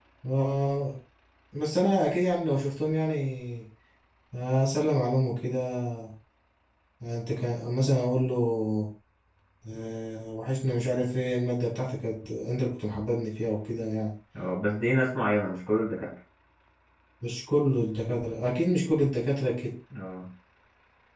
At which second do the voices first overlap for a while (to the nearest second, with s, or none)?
none